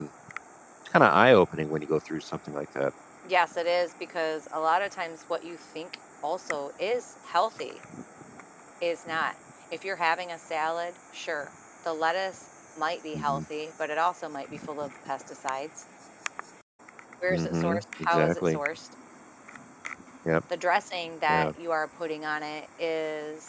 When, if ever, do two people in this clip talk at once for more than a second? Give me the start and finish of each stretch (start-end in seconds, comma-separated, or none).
17.3-18.6